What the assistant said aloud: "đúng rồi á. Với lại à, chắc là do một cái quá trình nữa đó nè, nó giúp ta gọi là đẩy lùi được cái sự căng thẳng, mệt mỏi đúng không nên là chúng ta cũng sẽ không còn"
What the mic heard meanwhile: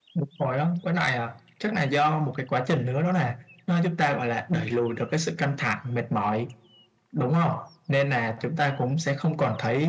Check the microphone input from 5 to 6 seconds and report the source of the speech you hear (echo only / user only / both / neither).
echo only